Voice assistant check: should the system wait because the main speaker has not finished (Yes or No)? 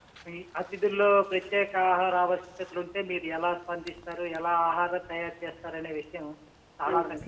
Yes